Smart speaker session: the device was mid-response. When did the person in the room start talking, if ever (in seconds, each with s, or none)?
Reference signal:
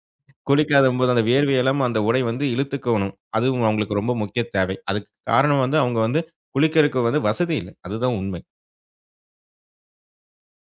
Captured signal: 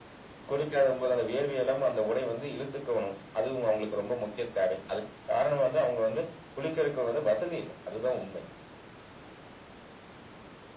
none